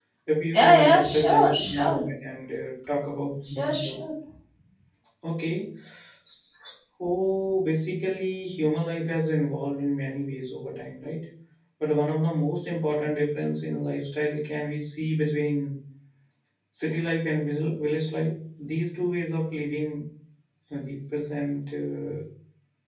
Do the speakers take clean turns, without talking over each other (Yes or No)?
No